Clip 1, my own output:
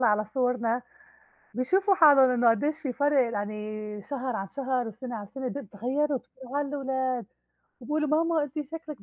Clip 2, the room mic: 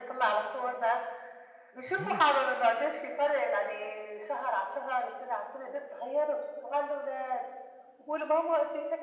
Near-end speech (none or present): present